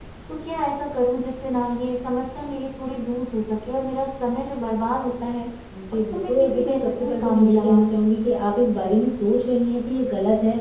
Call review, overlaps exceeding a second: present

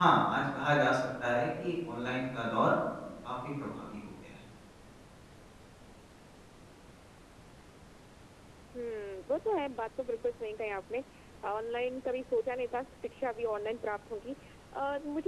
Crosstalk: none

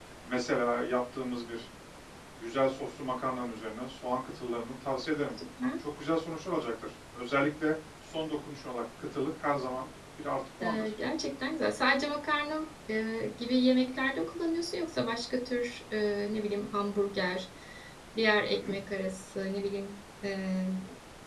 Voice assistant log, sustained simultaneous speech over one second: none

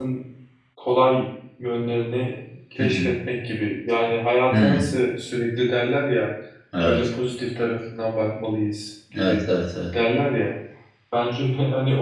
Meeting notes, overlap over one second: none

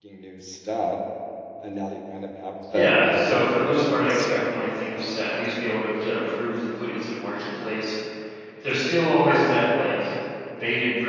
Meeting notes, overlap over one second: present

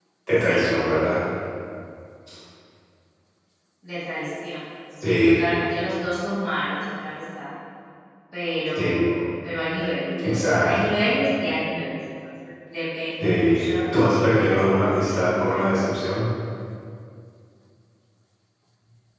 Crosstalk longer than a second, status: present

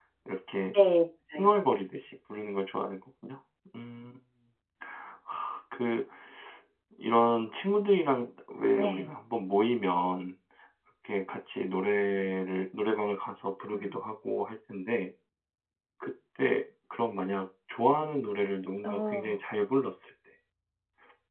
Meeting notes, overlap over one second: none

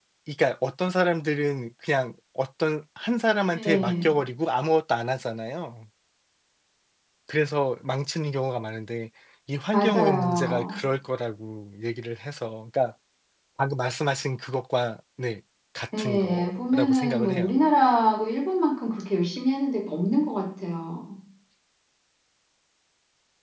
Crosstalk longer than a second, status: present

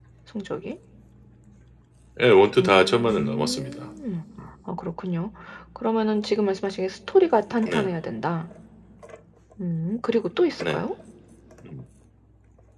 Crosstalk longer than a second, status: present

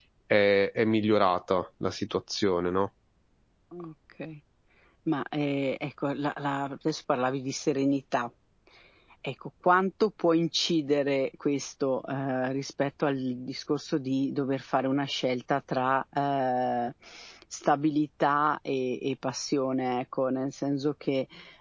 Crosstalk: none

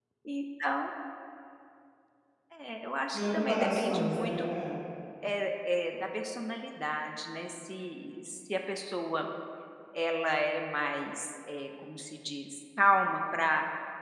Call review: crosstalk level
present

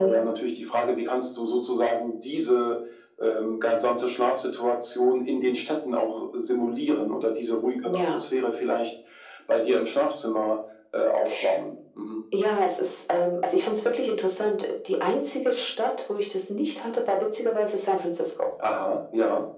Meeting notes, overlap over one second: none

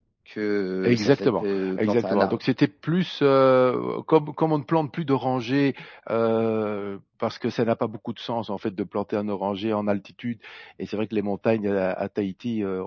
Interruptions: present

